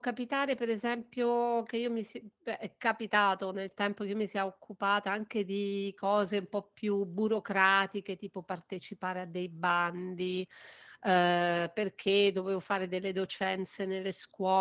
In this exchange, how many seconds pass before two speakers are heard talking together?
none

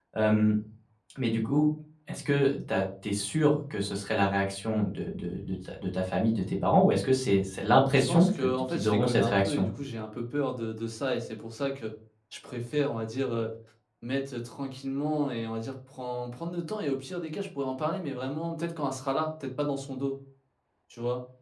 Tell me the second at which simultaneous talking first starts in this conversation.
8.1 s

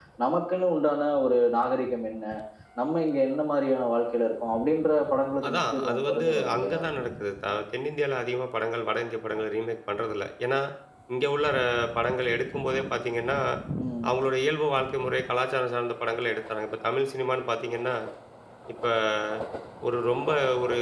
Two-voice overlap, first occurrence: 5.4 s

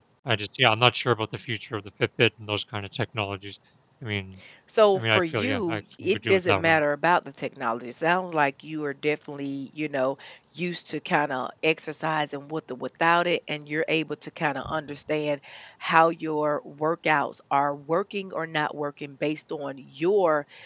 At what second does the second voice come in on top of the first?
4.9 s

